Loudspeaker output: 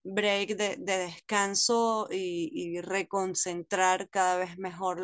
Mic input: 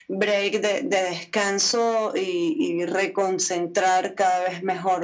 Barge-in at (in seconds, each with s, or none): none